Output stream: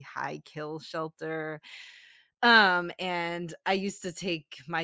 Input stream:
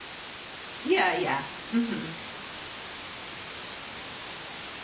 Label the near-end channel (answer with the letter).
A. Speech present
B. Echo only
A